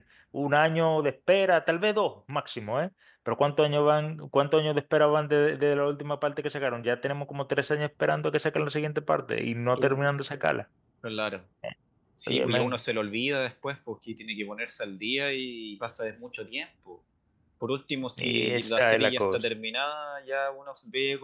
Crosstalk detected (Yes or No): Yes